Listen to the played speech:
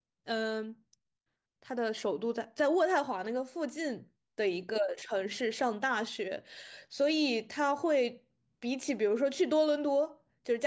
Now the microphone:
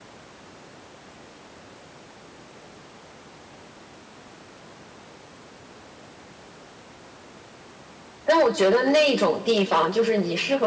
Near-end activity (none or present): present